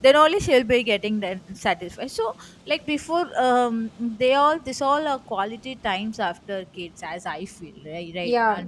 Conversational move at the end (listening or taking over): taking over